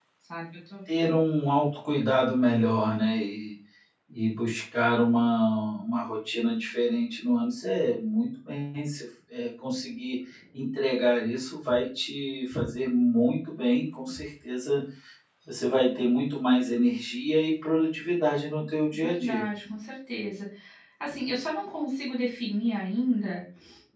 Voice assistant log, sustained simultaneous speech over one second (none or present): none